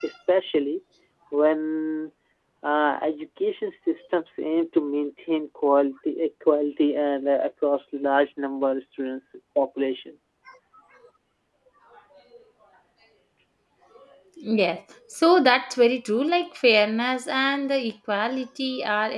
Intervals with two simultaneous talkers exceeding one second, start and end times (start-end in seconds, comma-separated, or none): none